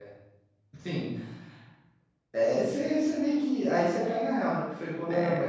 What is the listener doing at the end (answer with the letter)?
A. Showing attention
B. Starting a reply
A